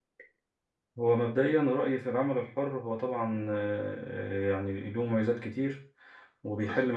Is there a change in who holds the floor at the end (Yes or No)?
No